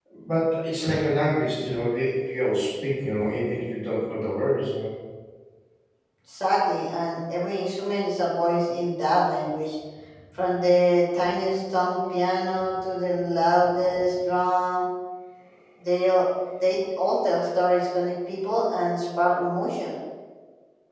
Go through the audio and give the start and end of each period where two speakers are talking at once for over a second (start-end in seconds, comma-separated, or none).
none